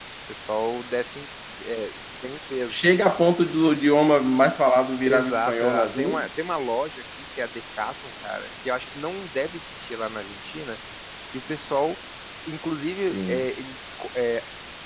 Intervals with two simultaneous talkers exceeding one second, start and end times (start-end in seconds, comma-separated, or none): 5.0-6.4